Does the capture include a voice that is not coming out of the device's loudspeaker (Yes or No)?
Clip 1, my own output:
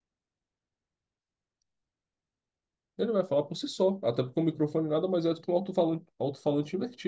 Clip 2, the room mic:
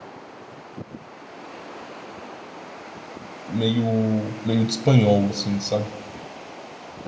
Yes